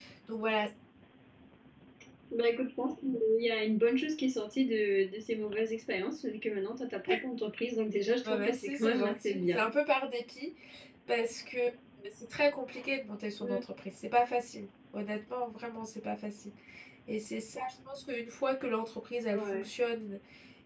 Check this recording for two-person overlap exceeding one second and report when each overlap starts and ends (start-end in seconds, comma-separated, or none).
8.2-9.6